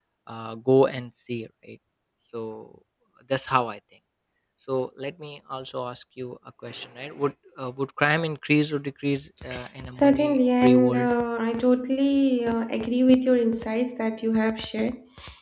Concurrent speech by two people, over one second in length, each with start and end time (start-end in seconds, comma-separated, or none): 9.9-11.1